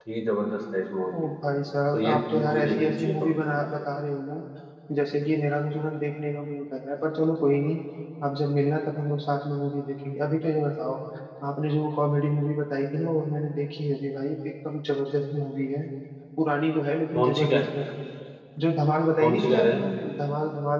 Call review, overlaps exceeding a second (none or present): present